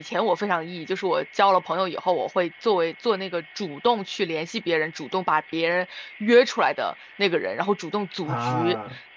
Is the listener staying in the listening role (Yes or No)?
Yes